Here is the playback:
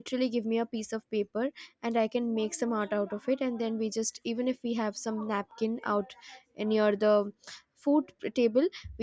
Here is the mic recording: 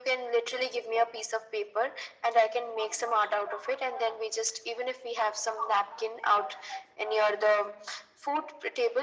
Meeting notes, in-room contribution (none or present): none